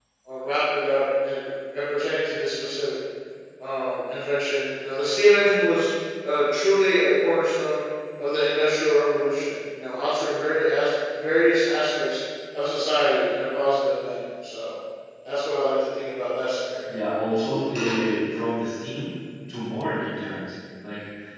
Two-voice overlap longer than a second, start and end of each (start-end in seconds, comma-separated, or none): none